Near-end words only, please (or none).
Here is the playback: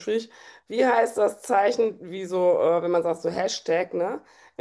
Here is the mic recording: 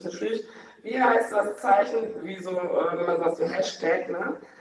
none